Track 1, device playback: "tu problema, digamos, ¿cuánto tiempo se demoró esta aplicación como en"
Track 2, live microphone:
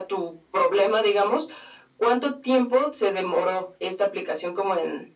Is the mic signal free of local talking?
Yes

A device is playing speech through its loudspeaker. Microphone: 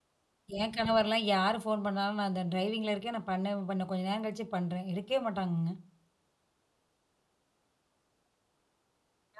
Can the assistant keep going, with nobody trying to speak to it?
No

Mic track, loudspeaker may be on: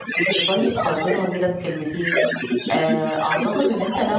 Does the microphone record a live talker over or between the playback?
Yes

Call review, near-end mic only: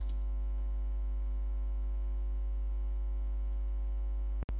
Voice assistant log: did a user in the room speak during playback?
No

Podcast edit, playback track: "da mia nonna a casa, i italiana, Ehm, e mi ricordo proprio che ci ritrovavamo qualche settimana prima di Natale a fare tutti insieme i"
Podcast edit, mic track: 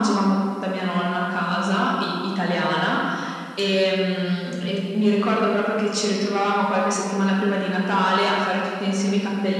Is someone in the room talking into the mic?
No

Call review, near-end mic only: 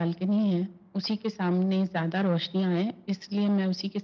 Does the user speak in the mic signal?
No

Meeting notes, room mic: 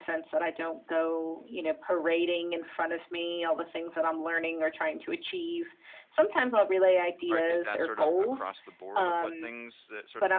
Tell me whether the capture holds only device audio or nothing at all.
No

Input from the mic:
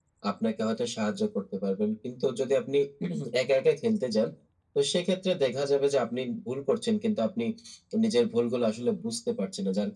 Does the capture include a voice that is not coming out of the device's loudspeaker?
No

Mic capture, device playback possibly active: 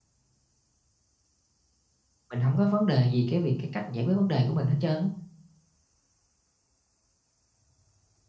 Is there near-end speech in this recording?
Yes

